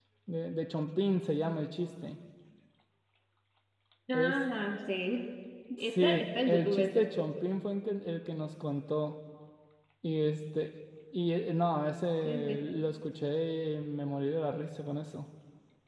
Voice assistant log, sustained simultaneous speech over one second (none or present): present